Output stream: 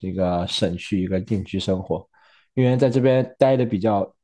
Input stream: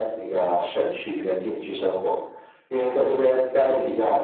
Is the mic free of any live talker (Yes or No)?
Yes